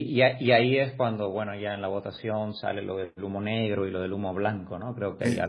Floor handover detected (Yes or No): Yes